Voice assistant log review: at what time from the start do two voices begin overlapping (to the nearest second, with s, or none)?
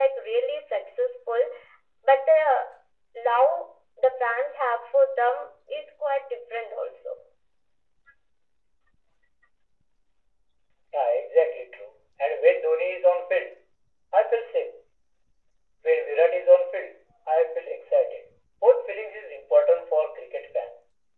none